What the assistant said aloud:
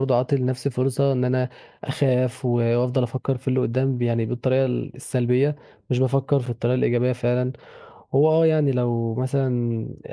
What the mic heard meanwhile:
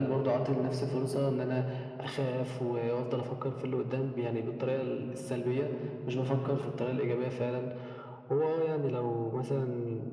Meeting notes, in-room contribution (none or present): none